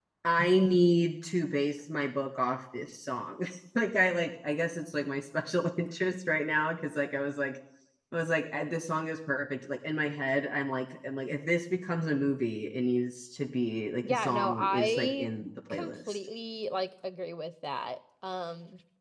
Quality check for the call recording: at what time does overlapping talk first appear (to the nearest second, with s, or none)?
14 s